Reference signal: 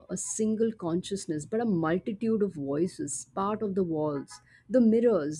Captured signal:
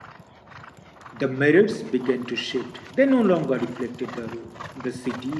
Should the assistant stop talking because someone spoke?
Yes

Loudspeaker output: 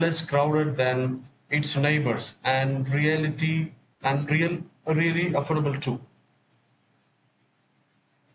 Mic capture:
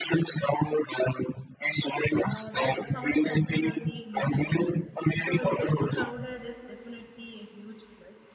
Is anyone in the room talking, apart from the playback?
Yes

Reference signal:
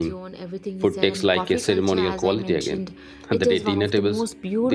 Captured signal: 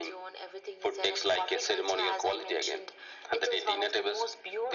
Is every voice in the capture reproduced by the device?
Yes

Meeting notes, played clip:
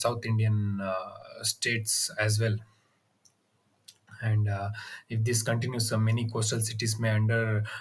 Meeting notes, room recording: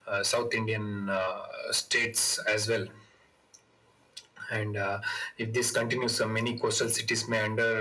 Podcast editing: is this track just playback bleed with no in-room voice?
Yes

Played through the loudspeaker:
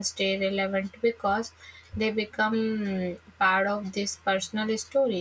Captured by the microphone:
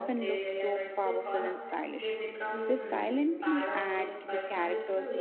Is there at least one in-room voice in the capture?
Yes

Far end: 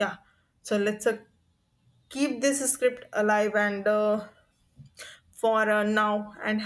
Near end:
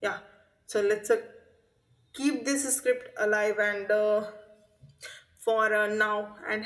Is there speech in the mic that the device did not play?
No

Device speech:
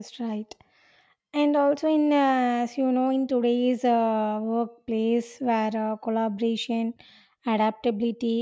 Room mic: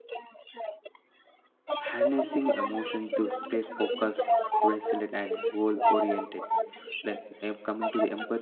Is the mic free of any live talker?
No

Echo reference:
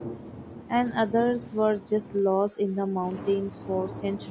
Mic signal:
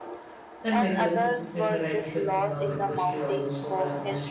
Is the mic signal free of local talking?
No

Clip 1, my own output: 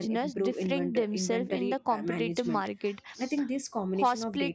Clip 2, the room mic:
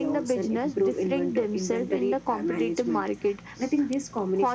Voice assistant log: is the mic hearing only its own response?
Yes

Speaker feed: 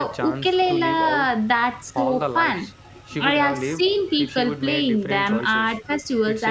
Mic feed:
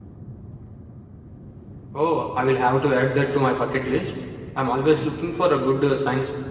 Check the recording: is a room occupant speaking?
Yes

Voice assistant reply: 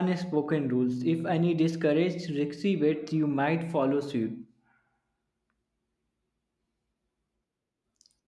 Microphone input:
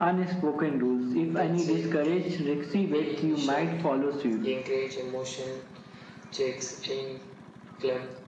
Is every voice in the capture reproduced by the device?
No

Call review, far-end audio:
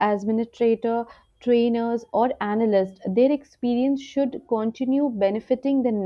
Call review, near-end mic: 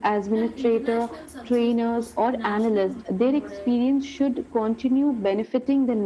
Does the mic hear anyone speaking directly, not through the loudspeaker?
Yes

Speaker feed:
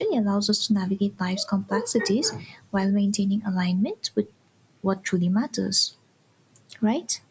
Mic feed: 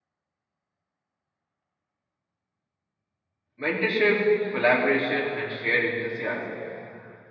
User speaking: Yes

